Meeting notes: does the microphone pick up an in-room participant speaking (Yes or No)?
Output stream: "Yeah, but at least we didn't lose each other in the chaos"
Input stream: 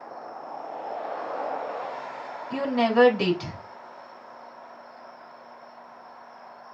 Yes